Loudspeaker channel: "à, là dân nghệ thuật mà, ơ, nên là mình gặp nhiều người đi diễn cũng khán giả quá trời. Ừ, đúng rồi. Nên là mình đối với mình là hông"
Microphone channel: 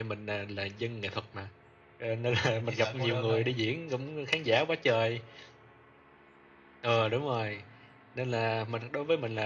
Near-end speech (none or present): present